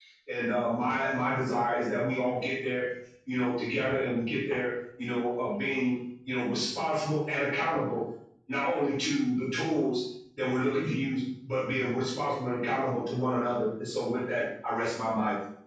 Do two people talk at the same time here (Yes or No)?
No